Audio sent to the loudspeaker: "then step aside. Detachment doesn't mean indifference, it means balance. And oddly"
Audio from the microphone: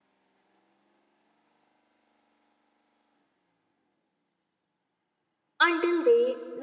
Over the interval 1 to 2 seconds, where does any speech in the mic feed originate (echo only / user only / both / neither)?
neither